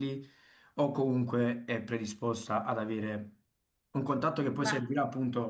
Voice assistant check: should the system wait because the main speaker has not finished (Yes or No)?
Yes